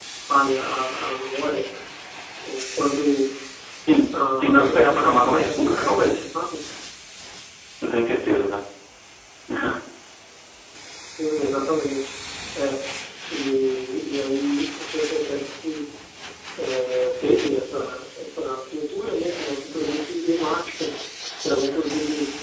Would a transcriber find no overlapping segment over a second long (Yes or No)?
No